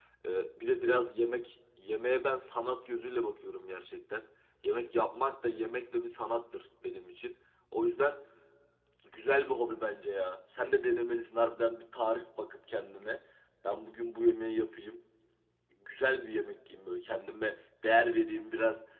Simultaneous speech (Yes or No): No